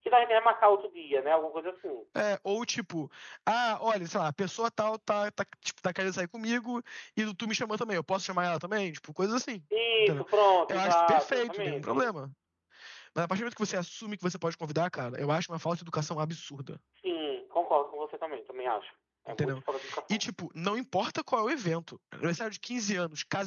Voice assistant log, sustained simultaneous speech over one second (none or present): present